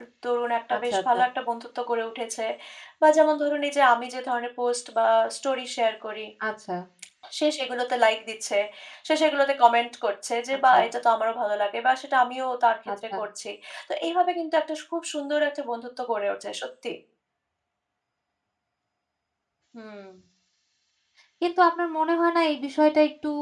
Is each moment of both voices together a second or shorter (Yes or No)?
Yes